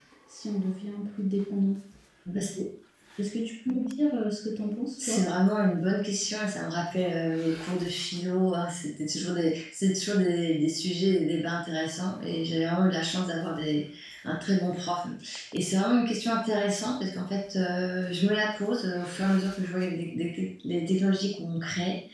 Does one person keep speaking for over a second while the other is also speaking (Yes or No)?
No